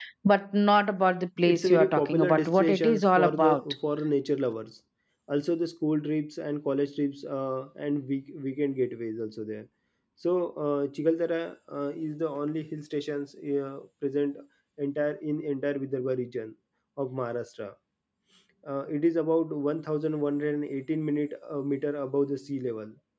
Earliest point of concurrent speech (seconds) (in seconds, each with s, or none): 1.4 s